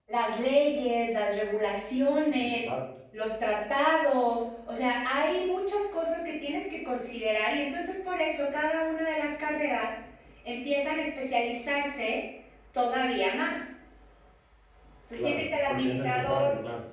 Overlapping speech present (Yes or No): Yes